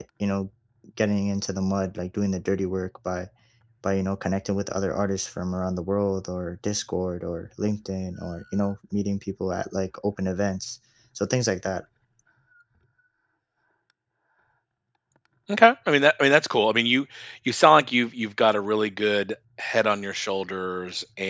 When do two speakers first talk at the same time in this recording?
none

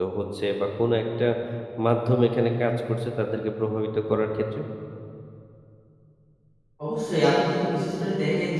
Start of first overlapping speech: none

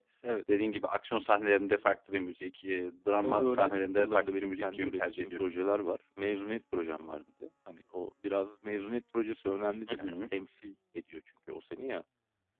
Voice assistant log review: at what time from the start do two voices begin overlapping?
3.2 s

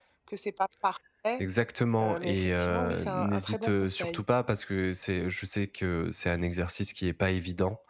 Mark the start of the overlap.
2.0 s

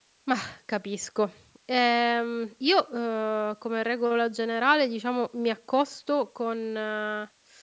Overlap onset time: none

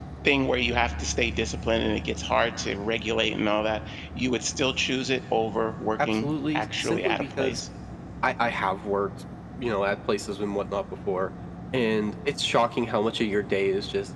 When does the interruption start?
6.0 s

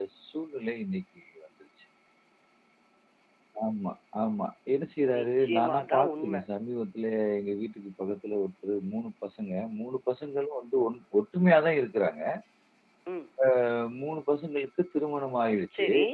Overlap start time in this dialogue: 5.1 s

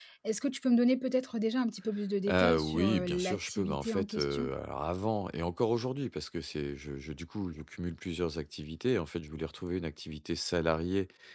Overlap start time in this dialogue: 2.3 s

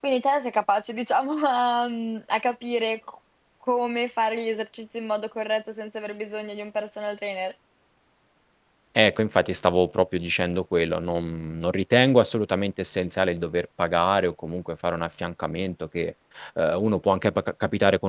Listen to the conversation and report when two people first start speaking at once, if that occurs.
none

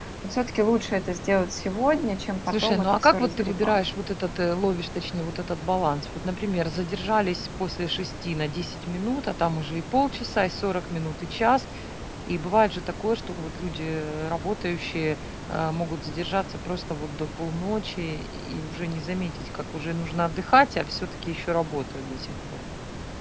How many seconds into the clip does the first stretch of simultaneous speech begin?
2.5 s

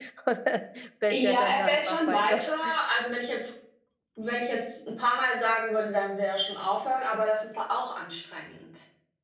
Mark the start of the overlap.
1.1 s

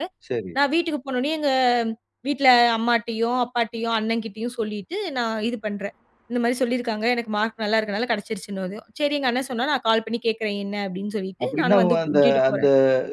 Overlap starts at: 11.4 s

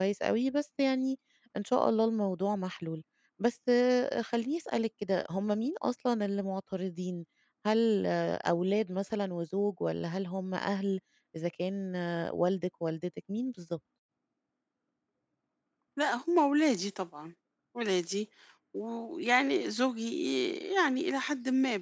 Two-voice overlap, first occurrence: none

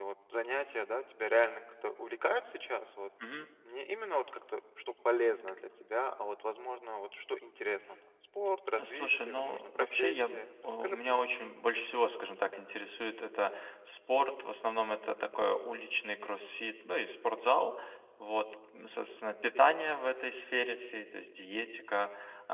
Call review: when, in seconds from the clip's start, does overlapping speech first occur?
8.7 s

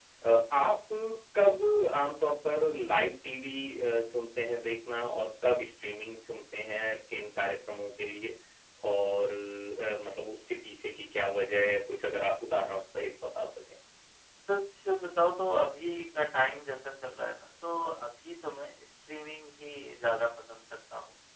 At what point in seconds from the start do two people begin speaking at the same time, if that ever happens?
none

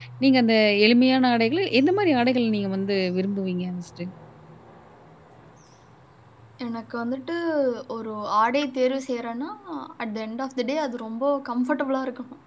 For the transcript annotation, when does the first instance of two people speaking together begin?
none

